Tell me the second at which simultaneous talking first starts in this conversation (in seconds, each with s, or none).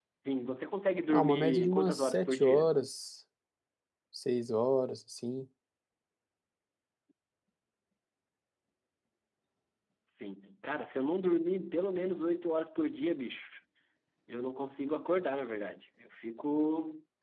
1.1 s